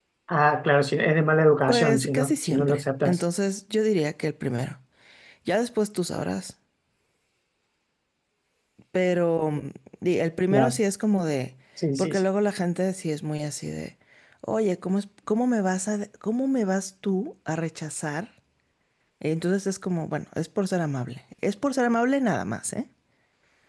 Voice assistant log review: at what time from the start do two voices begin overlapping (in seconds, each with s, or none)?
1.7 s